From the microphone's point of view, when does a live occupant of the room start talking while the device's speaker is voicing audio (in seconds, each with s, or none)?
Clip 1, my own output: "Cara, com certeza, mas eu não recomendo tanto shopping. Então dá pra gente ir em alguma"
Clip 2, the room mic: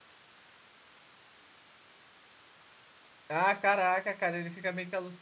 3.3 s